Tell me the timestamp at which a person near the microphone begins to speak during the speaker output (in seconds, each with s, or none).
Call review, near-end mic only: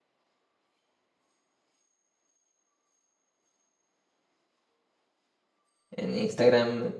5.9 s